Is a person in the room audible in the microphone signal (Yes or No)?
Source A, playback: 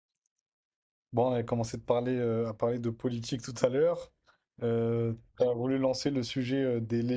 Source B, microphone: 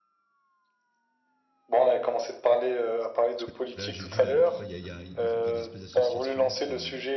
Yes